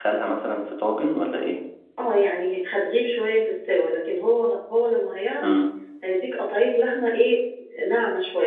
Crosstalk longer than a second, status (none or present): none